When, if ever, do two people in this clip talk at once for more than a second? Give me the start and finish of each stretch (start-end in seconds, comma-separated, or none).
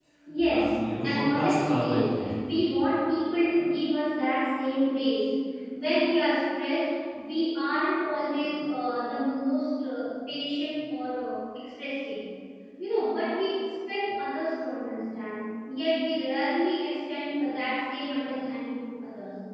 0.5-2.3